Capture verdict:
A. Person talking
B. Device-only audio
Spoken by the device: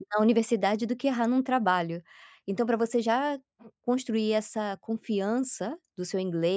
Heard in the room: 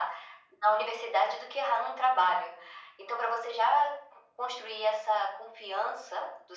B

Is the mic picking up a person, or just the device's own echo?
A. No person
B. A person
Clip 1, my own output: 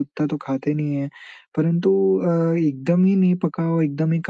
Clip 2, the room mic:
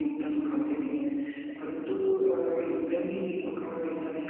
A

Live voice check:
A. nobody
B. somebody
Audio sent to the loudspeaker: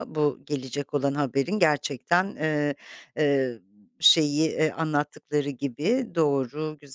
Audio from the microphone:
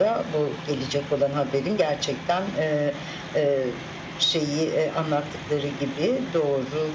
A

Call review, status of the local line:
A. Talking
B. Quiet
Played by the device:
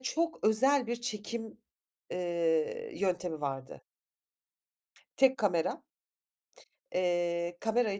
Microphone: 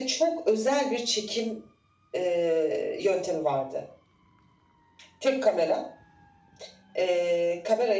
B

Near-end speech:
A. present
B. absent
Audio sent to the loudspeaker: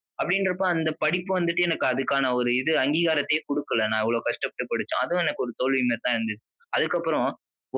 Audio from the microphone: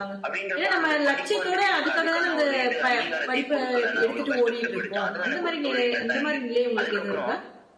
A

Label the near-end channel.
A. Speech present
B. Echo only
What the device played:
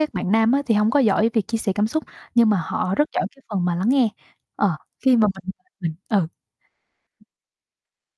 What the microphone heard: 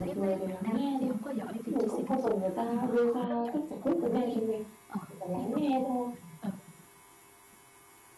A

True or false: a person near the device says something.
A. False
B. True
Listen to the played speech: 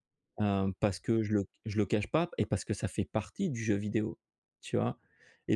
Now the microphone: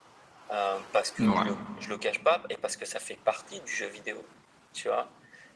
B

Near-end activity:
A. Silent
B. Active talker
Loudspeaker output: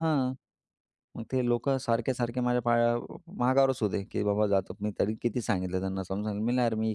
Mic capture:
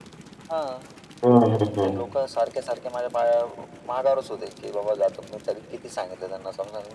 B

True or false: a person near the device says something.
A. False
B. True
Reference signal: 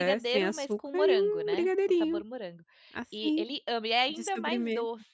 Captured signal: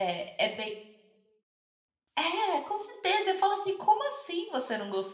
B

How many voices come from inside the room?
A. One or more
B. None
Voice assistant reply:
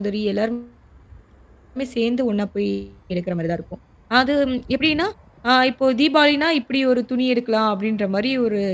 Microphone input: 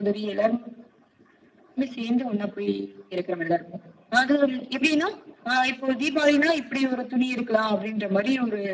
B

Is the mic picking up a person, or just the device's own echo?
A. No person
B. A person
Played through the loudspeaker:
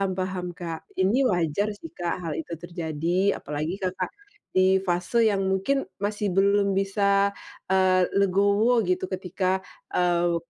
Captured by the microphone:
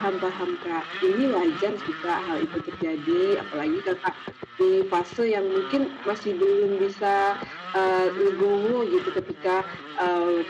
A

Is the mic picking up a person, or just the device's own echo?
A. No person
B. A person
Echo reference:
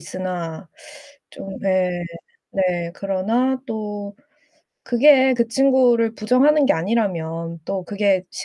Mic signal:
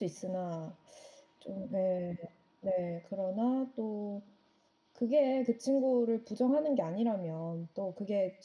A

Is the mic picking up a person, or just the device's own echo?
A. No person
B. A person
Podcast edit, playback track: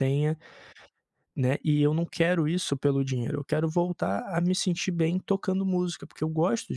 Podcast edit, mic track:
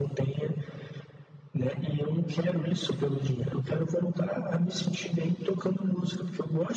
A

